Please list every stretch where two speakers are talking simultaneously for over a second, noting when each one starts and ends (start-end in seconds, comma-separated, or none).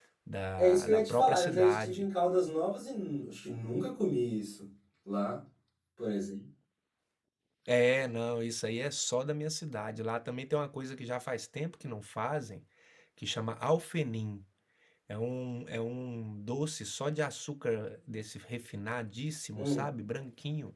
0.6-2.1